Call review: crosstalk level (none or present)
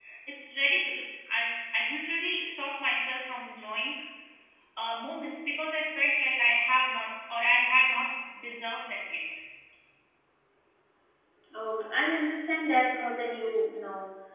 none